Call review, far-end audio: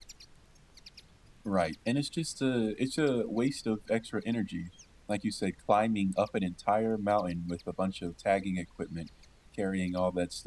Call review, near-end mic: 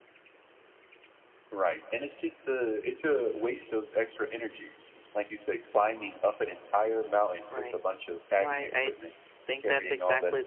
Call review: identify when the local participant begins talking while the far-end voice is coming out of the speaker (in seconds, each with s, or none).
7.5 s